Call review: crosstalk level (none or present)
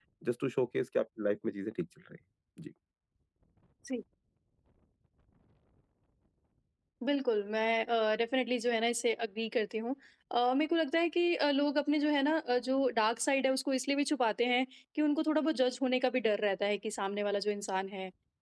none